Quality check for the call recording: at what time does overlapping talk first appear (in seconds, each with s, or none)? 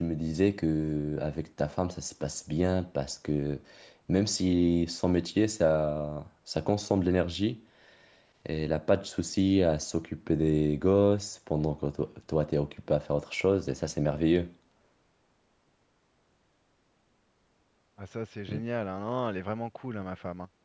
none